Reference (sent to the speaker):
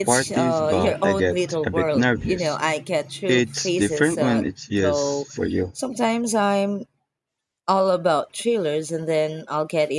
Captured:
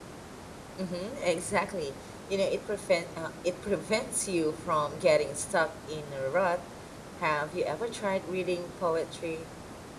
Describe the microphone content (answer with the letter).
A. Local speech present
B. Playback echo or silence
A